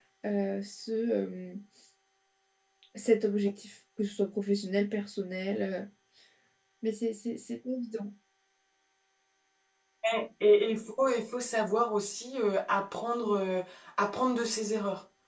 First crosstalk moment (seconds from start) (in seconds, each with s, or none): none